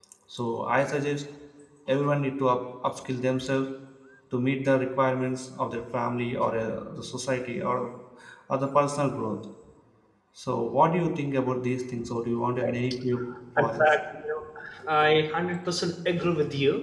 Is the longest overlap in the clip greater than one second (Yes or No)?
No